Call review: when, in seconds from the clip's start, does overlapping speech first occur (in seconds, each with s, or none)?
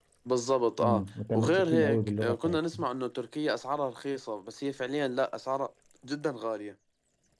0.8 s